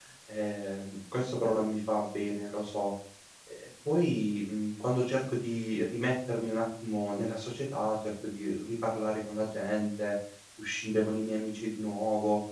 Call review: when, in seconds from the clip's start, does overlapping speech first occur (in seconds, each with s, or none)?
none